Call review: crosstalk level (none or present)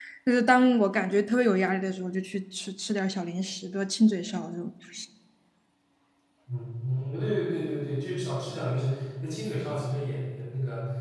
none